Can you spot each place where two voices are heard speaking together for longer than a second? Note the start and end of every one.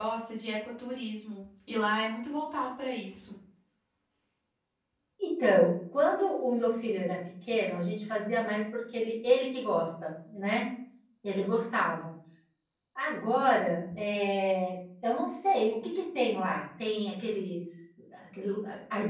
none

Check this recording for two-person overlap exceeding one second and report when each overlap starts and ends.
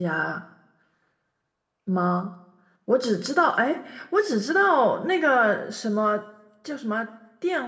none

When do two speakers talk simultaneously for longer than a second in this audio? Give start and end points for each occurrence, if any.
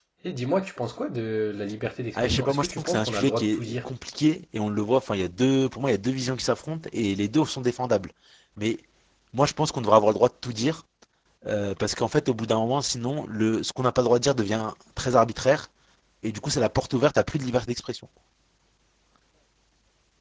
2.1-3.8

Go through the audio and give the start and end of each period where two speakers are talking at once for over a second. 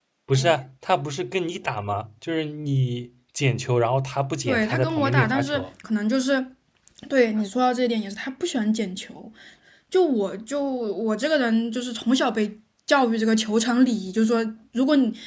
4.5-5.7

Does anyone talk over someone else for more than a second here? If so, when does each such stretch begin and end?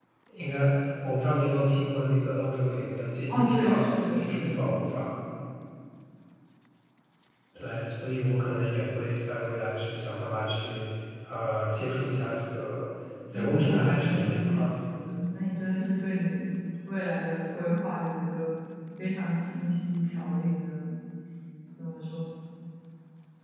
3.3-4.9, 13.3-14.7

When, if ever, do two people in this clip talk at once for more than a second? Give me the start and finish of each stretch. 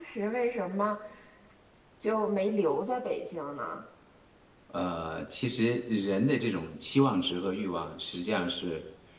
none

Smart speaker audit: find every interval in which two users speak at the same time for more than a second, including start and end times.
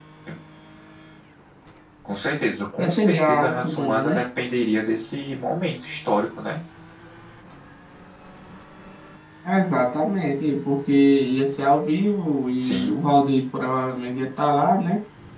2.8-4.2

